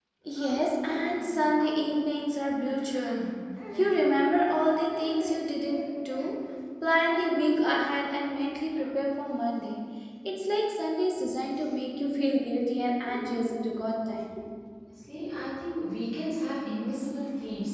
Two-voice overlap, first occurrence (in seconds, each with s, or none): none